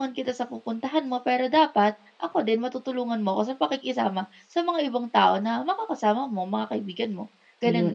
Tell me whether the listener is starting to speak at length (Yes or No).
Yes